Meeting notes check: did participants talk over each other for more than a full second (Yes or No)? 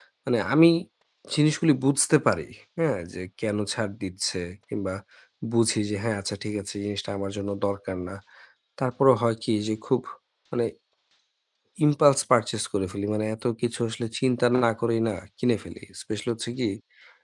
No